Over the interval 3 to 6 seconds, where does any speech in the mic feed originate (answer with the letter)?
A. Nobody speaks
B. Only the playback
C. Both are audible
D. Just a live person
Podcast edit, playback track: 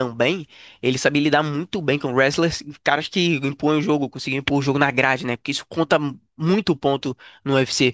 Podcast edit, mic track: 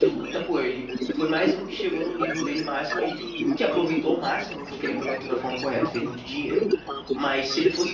C